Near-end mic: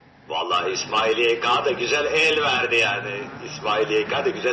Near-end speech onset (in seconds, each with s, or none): none